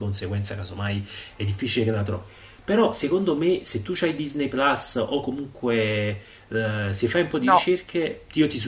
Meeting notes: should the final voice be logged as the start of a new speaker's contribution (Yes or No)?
No